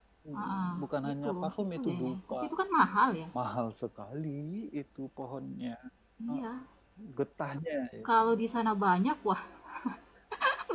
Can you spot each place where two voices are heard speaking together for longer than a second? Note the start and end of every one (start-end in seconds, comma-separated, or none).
1.1-2.4